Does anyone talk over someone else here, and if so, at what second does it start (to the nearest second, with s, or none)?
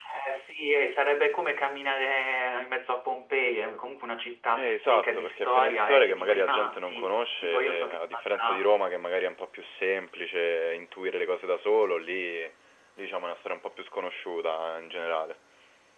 5 s